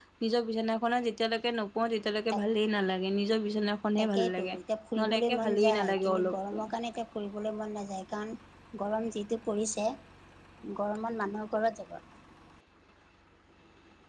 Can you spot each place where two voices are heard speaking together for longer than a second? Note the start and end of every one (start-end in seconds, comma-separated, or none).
5.0-6.6